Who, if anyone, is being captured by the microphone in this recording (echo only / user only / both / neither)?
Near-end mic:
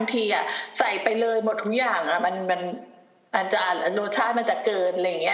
echo only